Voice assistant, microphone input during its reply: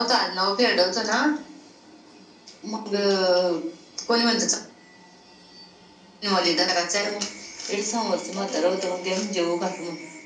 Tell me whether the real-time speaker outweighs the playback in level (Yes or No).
No